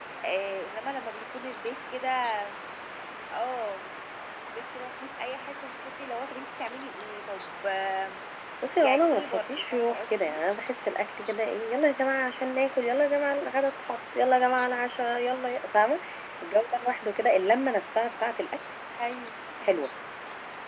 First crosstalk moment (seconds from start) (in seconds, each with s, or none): 8.8 s